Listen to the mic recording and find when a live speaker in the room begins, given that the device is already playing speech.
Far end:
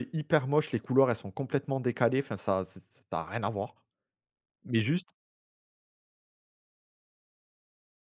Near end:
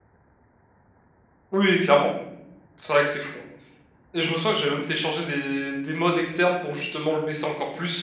2 s

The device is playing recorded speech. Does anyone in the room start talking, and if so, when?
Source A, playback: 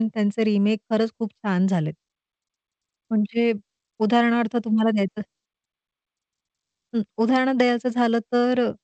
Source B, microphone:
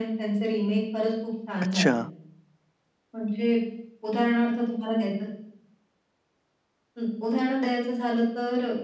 2 s

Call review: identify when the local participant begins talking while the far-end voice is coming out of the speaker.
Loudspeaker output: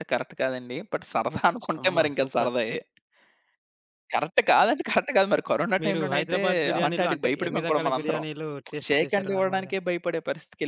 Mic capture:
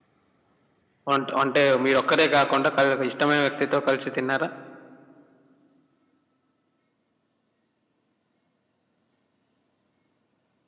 1 s

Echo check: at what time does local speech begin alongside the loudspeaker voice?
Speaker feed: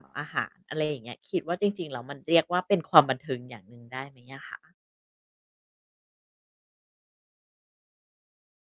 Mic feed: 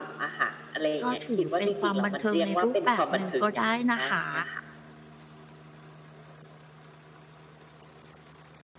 1 s

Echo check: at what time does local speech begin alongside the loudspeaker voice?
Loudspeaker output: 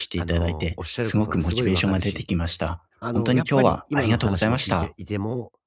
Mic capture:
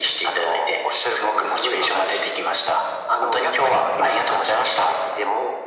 none

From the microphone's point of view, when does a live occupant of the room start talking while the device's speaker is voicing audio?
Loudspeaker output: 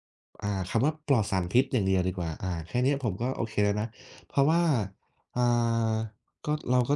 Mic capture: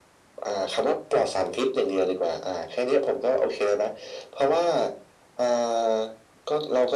none

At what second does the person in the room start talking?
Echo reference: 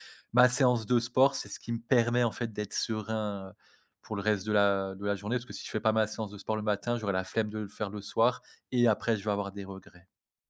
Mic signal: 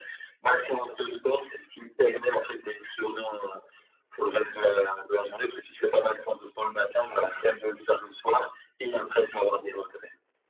none

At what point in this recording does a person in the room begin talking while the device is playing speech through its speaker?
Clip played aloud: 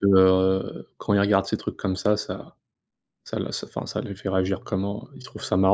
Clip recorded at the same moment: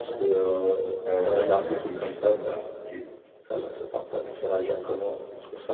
1 s

